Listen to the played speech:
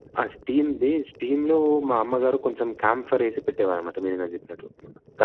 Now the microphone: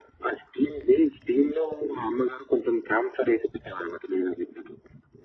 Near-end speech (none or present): none